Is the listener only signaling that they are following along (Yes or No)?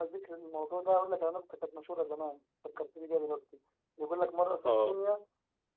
Yes